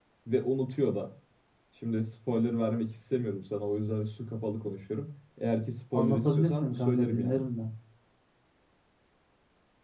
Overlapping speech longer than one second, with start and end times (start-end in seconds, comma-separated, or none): 5.9-7.4